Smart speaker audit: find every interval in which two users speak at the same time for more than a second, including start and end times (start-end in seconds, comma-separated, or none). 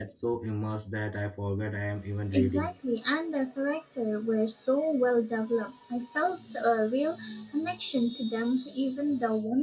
none